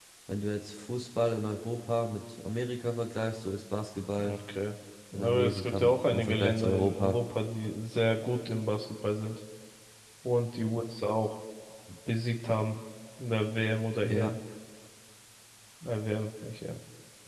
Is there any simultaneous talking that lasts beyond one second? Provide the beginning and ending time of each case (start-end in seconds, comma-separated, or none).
5.1-7.2